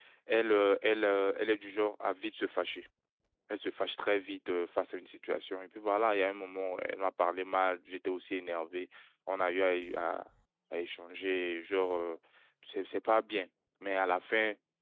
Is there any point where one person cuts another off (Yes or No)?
No